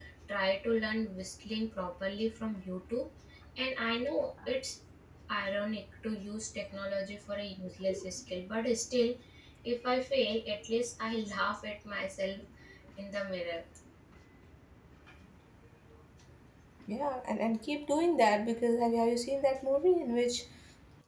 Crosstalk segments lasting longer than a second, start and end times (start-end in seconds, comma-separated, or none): none